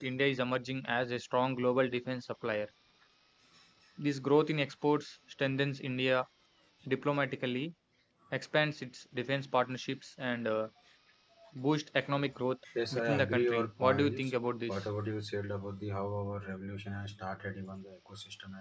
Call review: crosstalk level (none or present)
present